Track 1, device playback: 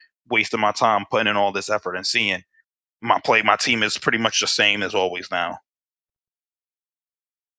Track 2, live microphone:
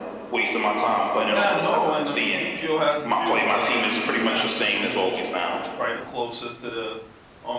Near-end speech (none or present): present